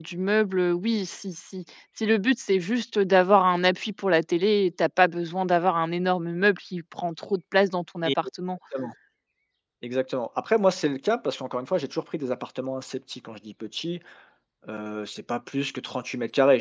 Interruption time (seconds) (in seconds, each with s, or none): none